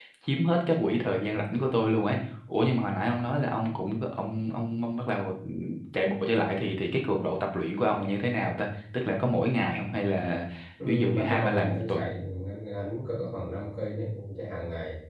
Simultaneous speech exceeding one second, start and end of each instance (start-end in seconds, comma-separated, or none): 10.9-12.1